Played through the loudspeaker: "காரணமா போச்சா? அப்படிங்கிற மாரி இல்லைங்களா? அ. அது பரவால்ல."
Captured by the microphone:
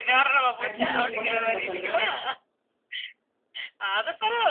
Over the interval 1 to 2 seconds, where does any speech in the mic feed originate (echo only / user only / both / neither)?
both